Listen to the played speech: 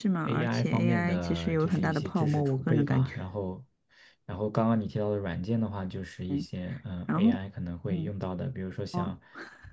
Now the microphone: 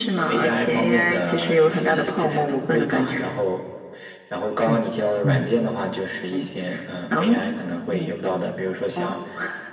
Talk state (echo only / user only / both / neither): both